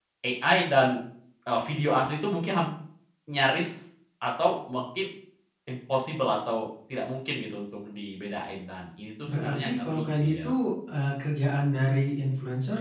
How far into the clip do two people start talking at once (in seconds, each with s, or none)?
9.2 s